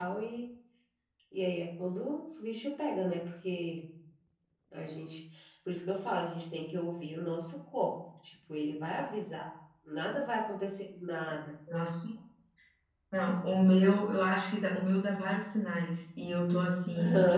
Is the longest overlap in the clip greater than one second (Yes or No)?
No